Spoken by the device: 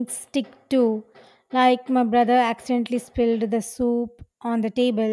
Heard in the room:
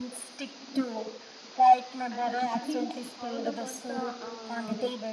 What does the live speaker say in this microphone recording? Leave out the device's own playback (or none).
And it's funny how the first uh, uh,